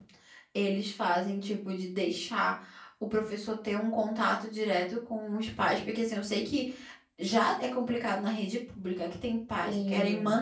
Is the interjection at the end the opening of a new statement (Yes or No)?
No